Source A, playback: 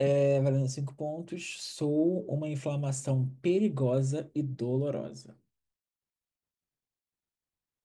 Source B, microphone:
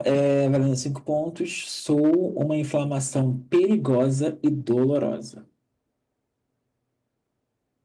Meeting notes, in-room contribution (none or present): none